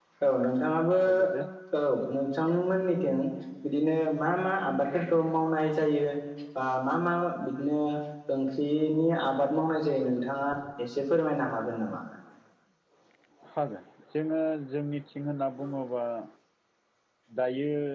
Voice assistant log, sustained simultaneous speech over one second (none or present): none